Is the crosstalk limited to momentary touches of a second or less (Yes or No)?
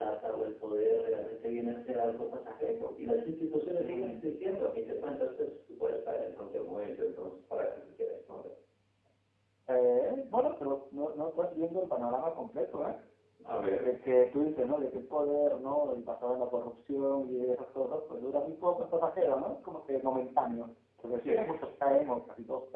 Yes